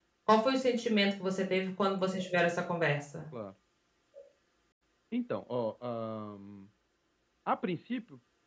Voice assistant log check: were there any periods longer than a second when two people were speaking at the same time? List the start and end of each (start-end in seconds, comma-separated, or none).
none